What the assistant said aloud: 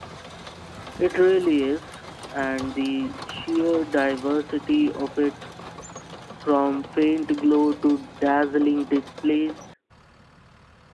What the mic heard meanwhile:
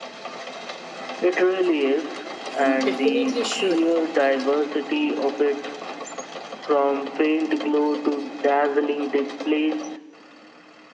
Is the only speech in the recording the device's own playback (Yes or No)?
No